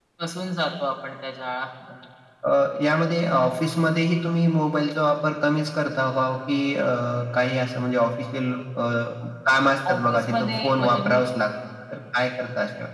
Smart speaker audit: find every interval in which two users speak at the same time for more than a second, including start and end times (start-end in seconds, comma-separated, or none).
9.9-11.2